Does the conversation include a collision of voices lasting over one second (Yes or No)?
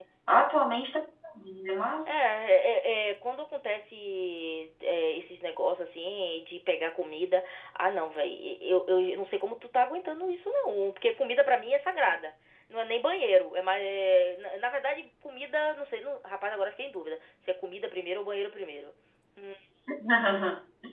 No